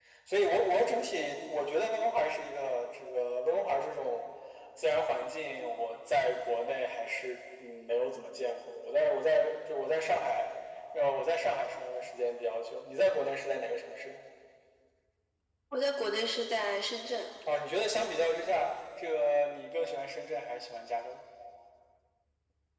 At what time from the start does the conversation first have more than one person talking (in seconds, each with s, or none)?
none